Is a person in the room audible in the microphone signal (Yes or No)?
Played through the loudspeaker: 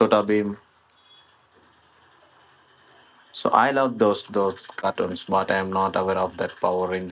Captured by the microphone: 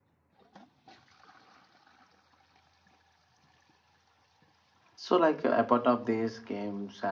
Yes